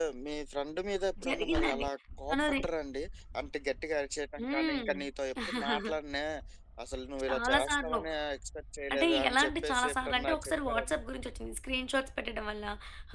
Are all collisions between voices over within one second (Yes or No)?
No